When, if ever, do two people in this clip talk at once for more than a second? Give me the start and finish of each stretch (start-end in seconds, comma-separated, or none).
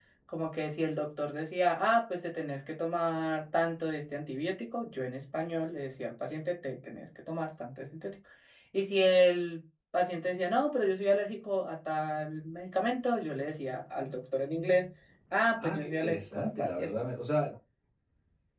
15.6-16.9